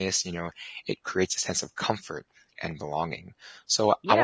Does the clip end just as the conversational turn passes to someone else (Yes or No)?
Yes